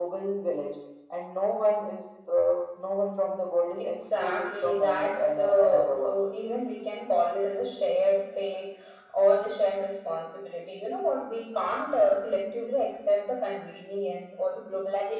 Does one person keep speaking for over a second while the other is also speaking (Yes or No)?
Yes